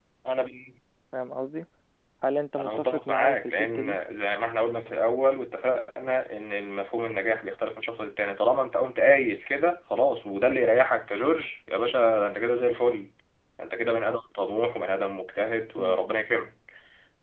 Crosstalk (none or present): present